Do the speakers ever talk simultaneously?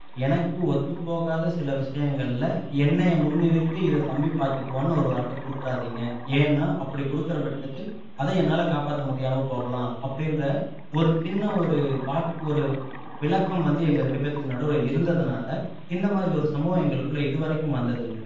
No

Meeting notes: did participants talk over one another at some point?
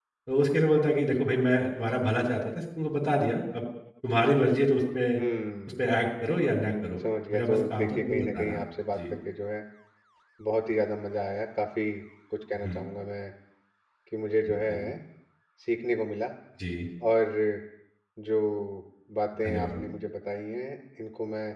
Yes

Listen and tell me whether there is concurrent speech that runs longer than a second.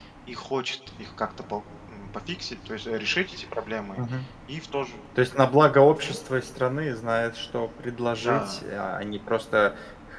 No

